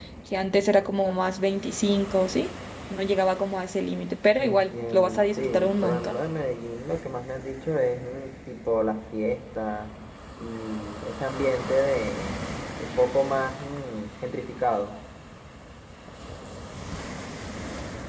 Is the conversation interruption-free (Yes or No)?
No